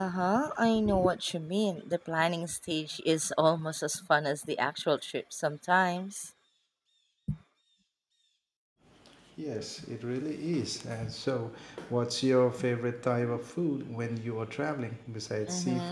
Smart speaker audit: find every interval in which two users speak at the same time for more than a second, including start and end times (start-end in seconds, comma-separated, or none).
none